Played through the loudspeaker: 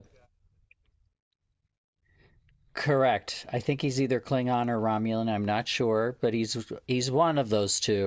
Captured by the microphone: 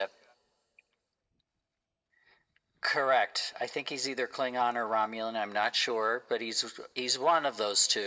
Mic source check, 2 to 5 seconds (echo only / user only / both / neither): echo only